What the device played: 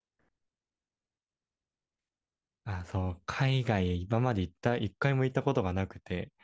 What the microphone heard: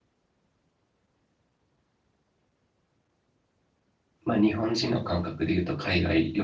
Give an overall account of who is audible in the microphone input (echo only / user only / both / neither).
user only